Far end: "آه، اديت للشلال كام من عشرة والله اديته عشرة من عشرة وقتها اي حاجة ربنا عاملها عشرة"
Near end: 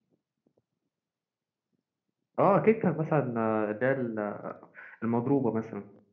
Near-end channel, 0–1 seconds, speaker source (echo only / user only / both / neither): neither